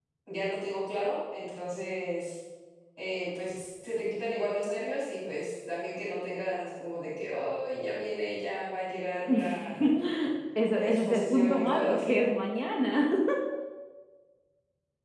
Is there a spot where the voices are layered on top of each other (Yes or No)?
Yes